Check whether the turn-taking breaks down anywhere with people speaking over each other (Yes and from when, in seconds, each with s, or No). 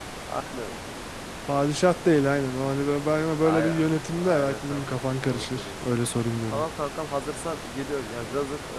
Yes, from 3.4 s